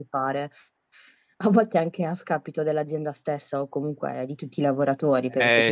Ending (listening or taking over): listening